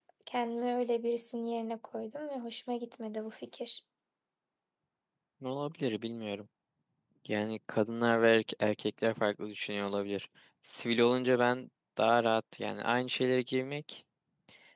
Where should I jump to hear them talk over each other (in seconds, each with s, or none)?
none